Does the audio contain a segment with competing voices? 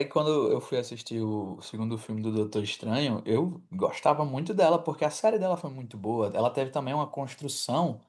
No

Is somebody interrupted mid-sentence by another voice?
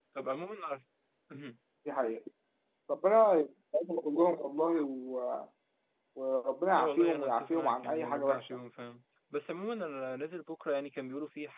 Yes, from 6.7 s

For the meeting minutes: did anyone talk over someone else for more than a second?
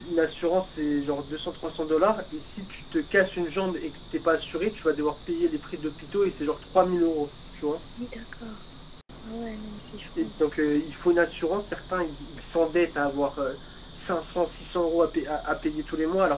No

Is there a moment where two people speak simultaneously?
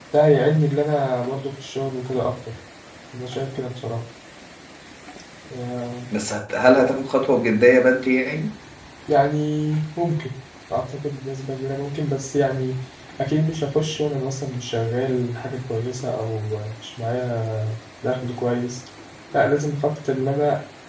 No

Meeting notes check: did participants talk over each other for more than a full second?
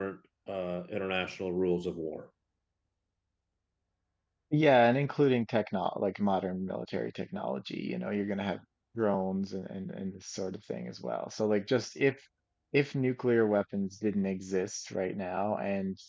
No

